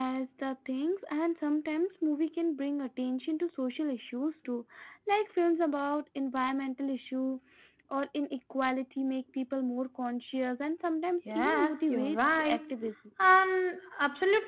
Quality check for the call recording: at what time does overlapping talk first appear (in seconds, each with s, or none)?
11.2 s